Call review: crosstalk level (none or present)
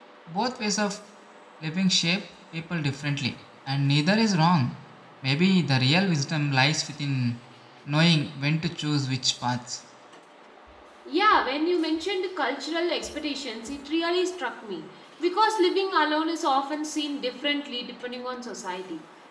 none